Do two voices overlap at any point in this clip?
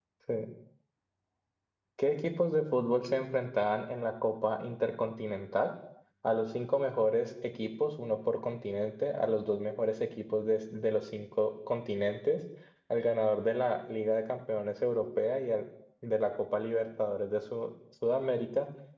No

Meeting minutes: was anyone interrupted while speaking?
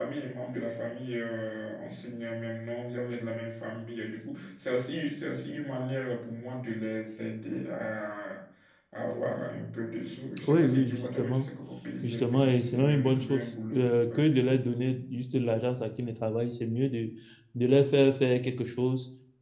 Yes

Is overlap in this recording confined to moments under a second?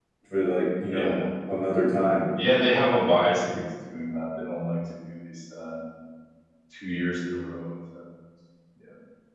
Yes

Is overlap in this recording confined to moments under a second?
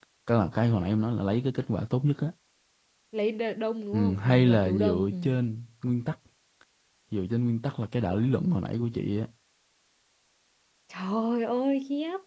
No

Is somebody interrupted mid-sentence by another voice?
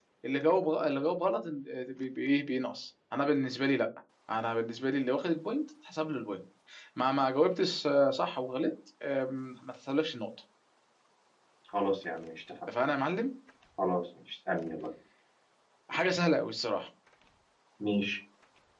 No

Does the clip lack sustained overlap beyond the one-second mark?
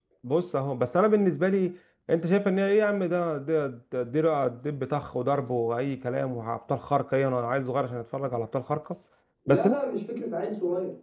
Yes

